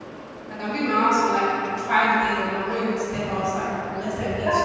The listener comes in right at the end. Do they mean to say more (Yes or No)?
Yes